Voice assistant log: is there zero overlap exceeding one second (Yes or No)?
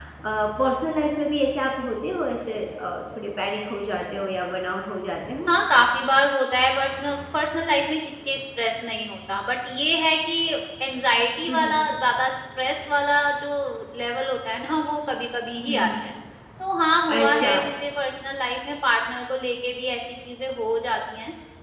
Yes